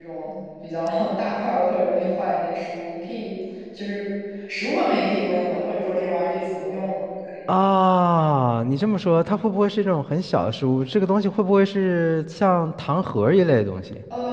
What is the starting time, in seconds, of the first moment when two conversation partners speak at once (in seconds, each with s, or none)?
none